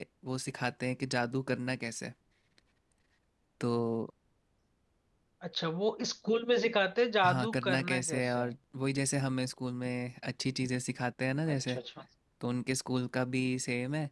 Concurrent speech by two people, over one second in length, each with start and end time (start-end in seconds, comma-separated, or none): 7.2-8.6